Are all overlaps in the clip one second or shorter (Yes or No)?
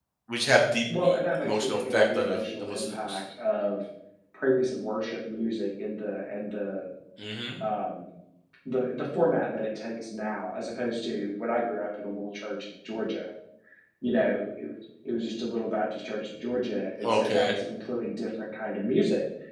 No